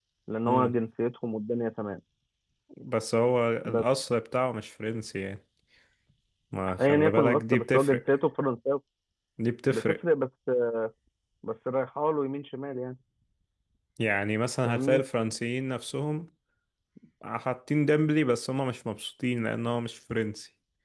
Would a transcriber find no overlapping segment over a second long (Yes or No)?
No